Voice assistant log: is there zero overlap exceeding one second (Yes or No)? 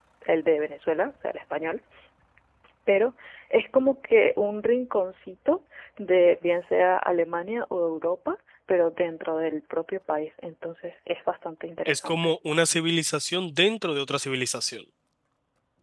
Yes